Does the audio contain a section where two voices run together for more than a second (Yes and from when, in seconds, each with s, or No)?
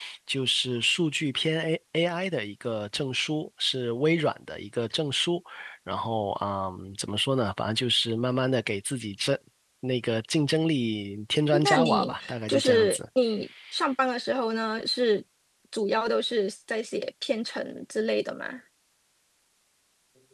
Yes, from 11.5 s